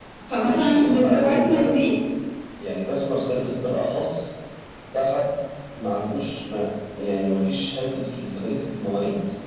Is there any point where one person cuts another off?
Yes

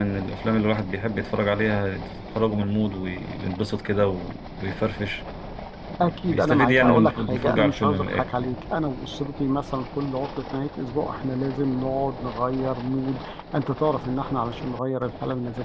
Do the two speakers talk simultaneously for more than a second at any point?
Yes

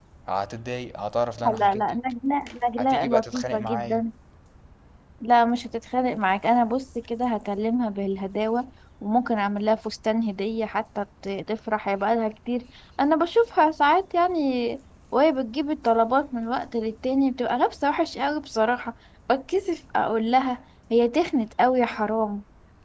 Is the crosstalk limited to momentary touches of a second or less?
No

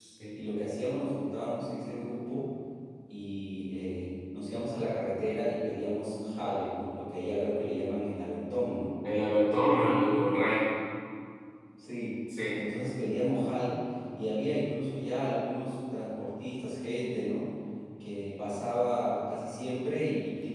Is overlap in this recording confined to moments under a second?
Yes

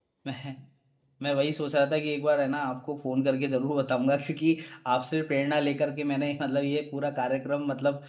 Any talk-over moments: No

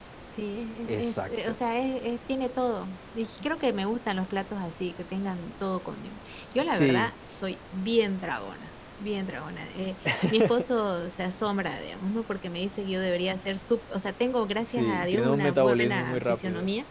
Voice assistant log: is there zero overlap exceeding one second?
No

